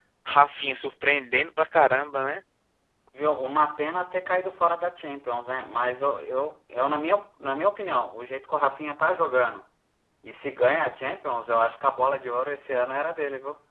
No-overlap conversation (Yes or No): Yes